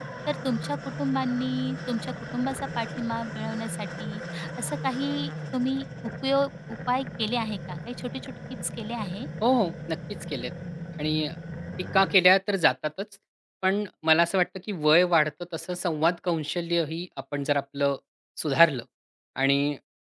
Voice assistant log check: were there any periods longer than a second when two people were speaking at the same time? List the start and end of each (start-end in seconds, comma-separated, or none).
none